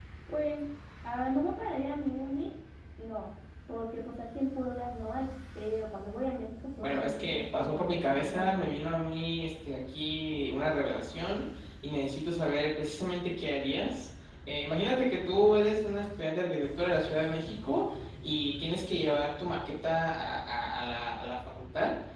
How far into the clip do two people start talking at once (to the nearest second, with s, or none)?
7 s